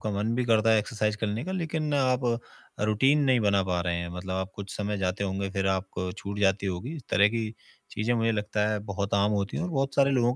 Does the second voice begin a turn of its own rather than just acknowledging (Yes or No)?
No